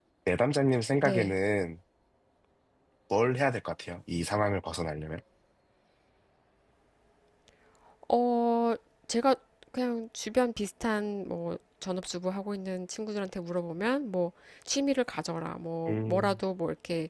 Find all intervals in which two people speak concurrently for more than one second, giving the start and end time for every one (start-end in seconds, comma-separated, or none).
none